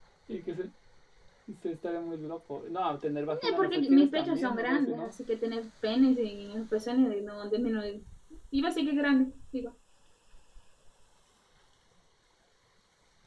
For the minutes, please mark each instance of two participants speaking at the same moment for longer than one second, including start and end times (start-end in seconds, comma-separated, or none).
3.3-5.1